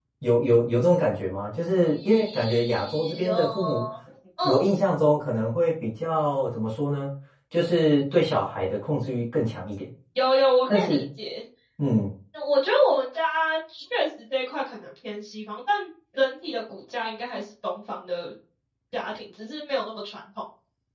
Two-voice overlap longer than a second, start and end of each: 1.8-3.9

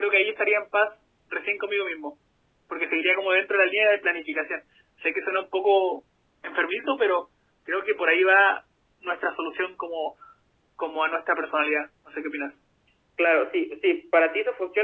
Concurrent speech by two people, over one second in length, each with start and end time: none

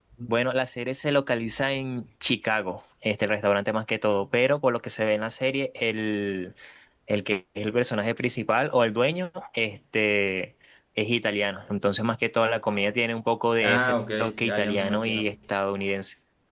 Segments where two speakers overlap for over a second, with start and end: 13.6-15.3

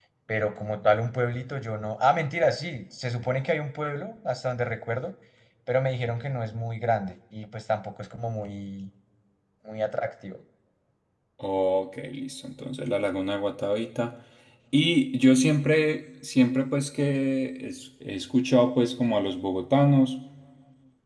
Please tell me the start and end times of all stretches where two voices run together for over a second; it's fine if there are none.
none

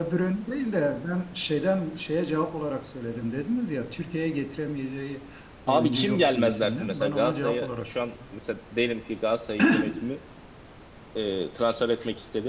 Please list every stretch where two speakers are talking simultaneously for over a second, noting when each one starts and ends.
5.7-7.9

